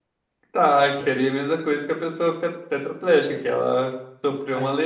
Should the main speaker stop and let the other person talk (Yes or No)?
Yes